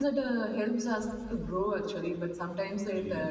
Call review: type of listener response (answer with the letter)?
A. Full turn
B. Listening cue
B